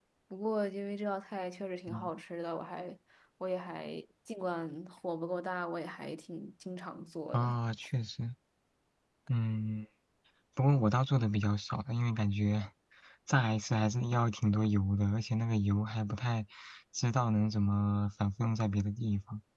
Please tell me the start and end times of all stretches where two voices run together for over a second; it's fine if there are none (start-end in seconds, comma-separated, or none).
none